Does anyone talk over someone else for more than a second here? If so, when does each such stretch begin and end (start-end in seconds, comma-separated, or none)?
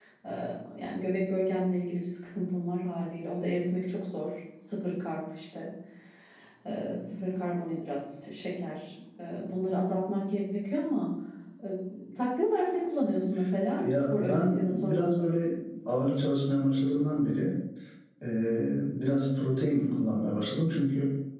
13.8-15.3